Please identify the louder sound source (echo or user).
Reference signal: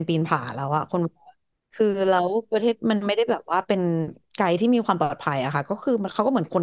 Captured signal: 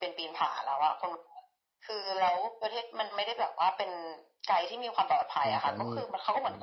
echo